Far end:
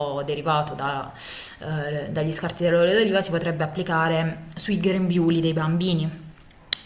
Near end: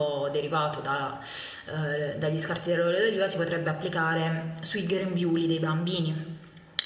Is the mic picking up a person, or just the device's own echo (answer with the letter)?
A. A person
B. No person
B